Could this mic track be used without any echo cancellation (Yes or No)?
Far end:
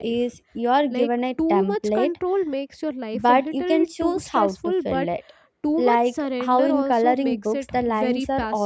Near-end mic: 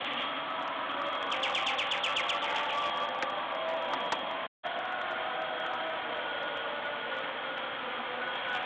Yes